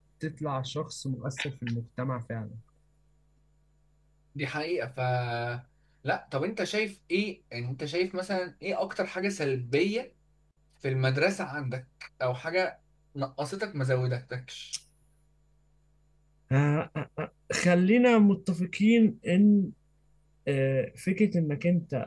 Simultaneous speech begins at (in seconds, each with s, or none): none